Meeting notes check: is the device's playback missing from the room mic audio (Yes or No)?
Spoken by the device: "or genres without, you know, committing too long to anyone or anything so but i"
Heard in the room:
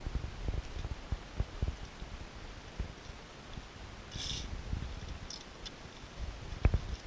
Yes